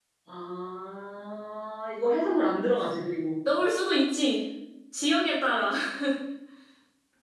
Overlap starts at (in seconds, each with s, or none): none